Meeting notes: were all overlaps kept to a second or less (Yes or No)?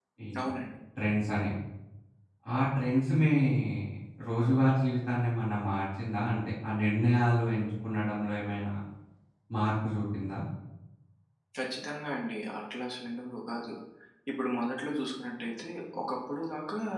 Yes